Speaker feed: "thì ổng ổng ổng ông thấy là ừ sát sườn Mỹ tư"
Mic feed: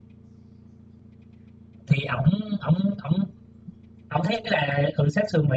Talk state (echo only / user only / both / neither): echo only